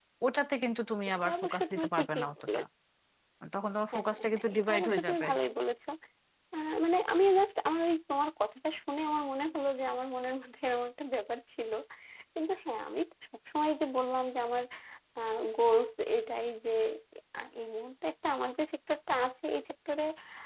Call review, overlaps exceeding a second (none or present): present